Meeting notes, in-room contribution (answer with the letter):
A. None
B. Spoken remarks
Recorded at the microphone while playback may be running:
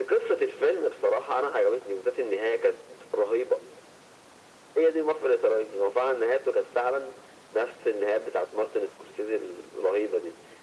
A